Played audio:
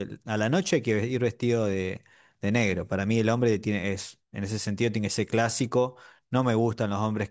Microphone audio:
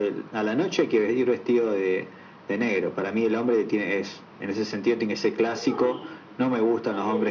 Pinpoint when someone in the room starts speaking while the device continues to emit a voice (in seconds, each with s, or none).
5.5 s